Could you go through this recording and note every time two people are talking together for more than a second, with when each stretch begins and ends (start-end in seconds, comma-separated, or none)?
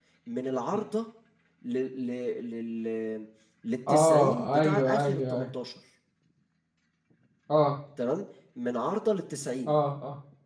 3.9-5.5